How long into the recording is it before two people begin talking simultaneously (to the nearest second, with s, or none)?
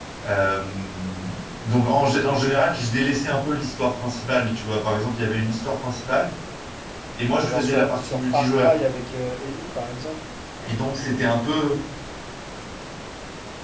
7 s